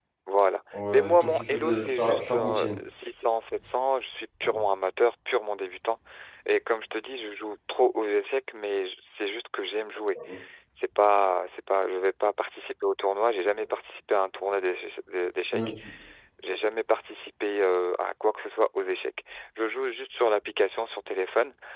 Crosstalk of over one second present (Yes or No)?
Yes